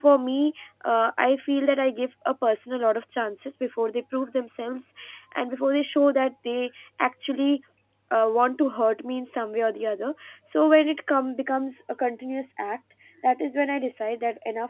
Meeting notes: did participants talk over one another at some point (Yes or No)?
No